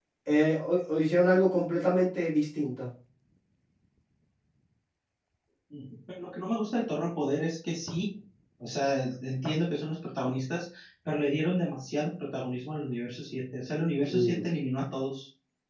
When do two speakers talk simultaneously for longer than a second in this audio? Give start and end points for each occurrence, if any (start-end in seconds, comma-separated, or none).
none